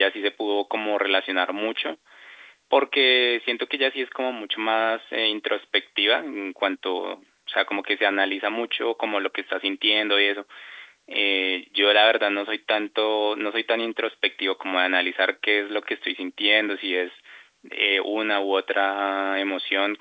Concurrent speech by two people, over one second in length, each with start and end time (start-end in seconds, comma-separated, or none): none